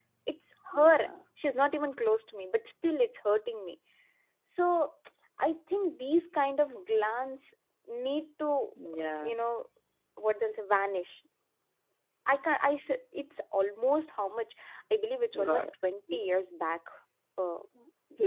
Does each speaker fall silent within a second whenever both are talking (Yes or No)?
Yes